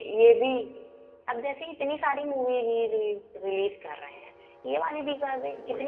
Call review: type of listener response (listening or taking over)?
listening